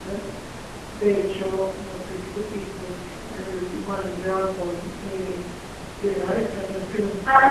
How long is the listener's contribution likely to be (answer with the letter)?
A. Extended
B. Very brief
A